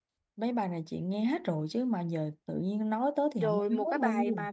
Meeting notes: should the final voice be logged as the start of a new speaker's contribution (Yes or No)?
Yes